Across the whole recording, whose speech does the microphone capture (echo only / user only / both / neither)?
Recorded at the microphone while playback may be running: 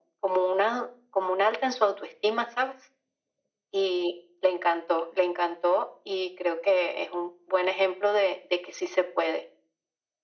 echo only